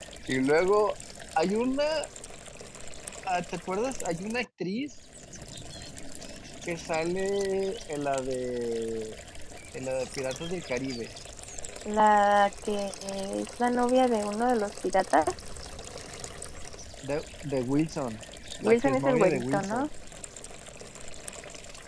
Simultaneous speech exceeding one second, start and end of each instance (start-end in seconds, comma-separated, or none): 18.6-19.9